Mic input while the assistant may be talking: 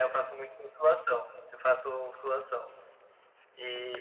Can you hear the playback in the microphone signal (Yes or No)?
Yes